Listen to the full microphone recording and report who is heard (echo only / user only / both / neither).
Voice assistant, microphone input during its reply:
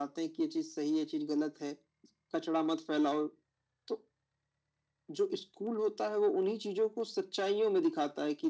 echo only